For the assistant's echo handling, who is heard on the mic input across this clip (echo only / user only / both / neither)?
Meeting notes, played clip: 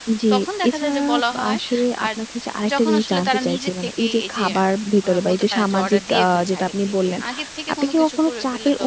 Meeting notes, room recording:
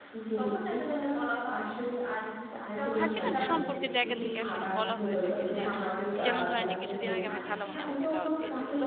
both